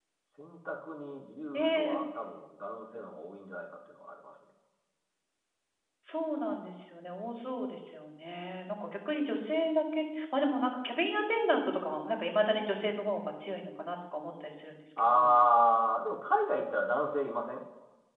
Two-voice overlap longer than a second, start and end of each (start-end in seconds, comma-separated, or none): none